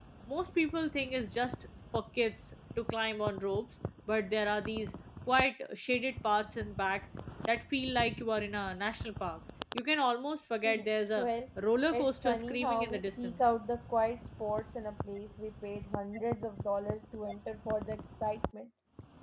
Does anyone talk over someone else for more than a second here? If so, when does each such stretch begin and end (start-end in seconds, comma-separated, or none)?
11.9-13.5